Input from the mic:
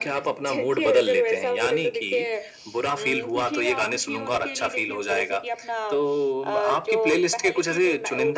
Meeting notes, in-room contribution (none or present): none